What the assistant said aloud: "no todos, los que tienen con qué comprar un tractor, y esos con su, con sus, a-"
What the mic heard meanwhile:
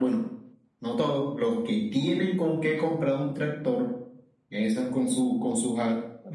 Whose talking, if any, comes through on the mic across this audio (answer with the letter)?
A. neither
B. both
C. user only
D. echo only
D